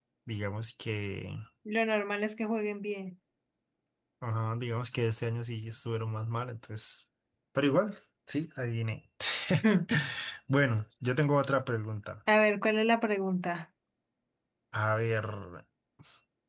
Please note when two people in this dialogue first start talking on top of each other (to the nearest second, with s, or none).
none